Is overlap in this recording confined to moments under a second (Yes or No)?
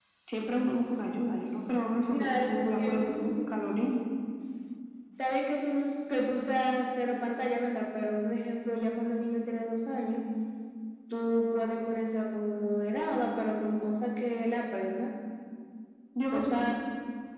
No